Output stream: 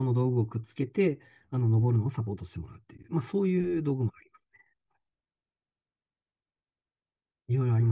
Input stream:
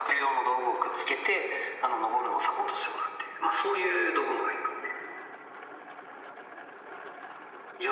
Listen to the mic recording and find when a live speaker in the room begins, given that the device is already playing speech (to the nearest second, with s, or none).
none